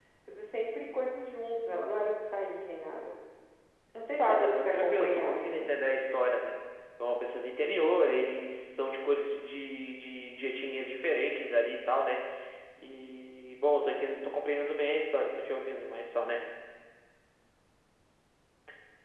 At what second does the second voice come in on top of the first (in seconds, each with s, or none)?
4.2 s